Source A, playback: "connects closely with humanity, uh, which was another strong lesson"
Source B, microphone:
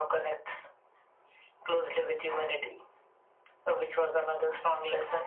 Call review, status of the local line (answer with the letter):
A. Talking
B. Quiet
B